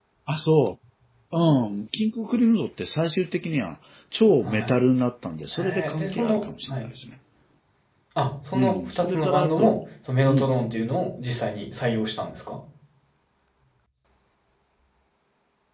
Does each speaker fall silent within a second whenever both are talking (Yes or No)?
No